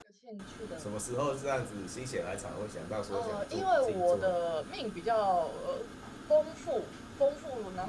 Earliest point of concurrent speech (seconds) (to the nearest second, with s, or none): 3 s